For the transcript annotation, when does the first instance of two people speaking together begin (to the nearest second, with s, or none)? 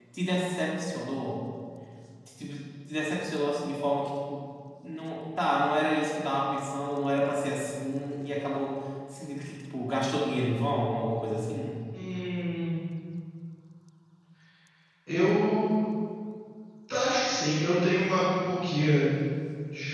none